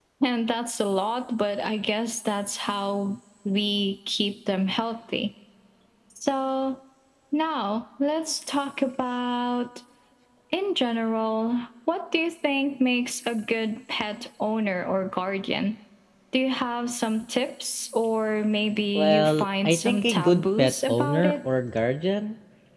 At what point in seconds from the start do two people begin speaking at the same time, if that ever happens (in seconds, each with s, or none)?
19.0 s